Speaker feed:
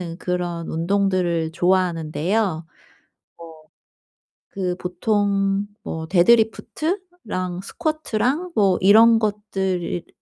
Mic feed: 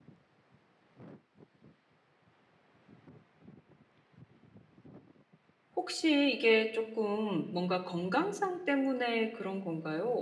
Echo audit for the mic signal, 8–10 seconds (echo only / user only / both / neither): user only